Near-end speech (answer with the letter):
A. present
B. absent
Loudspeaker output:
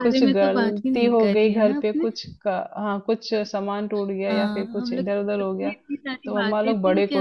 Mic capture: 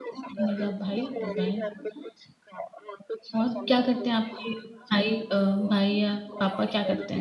A